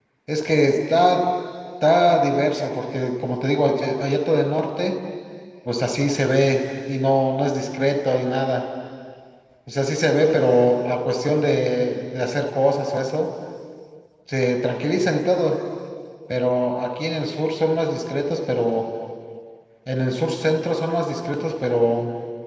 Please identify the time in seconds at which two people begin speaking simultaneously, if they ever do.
none

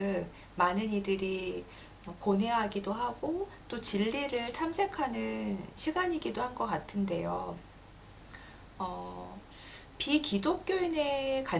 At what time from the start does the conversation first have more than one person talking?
none

